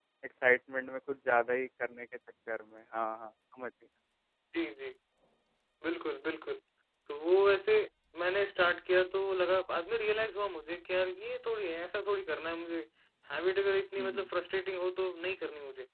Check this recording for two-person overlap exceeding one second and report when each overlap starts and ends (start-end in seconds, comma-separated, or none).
none